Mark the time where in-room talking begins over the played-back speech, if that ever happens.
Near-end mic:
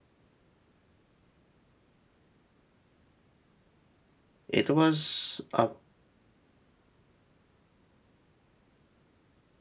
4.5 s

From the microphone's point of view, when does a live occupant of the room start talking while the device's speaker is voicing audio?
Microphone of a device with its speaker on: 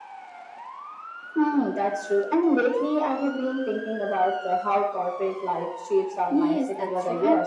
6.2 s

